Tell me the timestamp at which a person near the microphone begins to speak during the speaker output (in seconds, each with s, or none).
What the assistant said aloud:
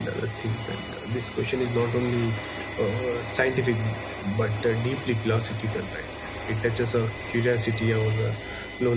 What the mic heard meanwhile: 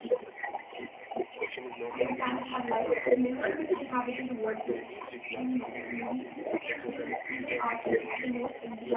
1.9 s